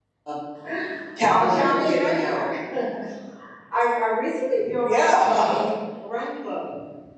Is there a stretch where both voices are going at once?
Yes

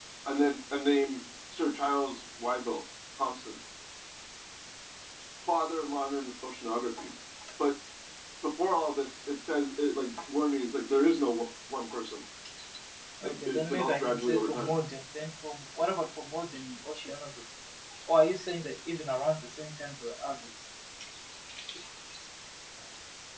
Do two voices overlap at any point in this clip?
Yes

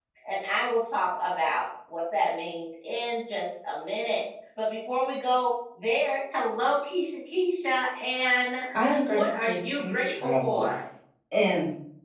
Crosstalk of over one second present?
Yes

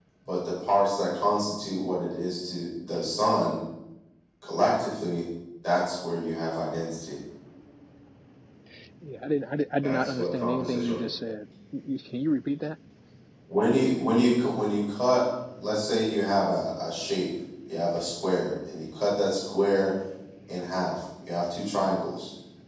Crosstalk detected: Yes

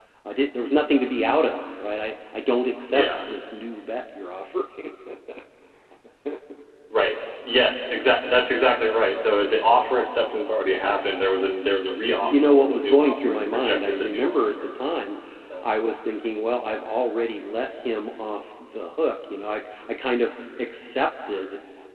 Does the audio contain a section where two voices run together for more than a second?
Yes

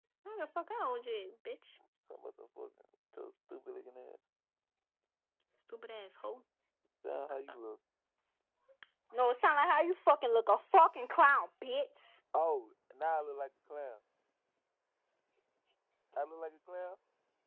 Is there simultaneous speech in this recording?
No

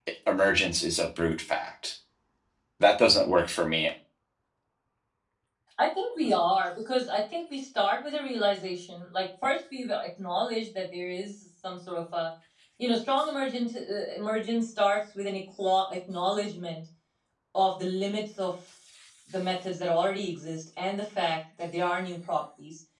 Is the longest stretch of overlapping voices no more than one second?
Yes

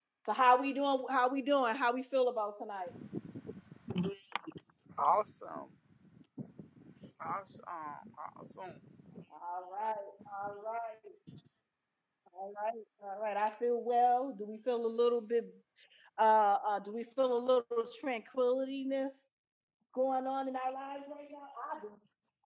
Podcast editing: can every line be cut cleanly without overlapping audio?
Yes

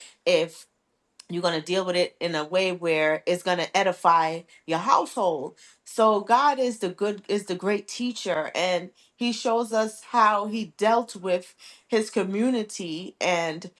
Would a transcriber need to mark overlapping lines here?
No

